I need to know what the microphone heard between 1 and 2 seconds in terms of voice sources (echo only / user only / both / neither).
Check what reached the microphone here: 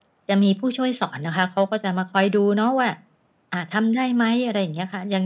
echo only